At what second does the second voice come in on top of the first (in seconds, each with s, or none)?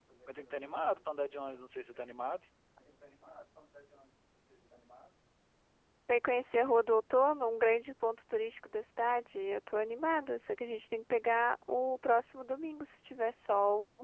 none